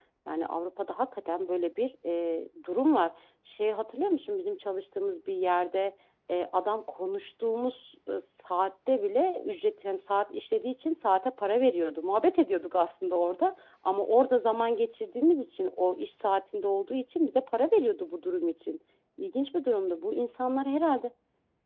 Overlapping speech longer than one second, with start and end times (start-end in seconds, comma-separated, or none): none